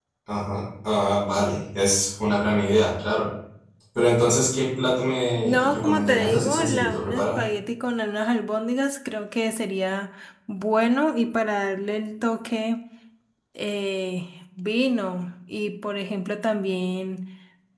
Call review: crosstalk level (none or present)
present